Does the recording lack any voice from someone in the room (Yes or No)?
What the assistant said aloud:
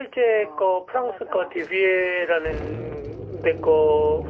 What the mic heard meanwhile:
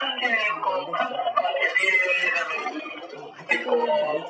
No